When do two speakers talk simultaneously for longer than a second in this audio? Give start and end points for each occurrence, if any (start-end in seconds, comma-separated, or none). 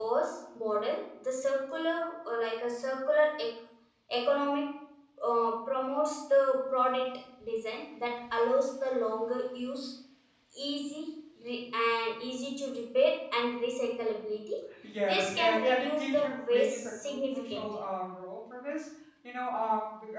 15.1-17.6